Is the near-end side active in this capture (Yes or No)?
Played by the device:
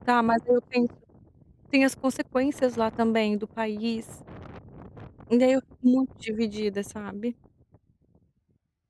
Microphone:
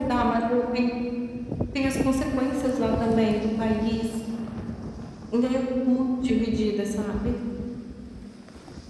No